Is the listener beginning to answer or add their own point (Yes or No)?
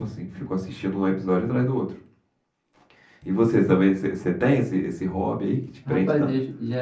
Yes